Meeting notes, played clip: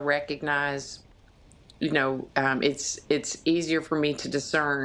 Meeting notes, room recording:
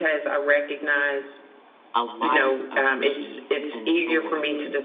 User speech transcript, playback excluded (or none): a life of peace and joy.